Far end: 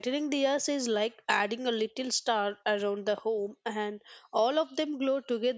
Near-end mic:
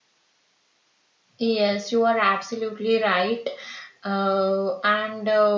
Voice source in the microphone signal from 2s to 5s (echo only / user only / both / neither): user only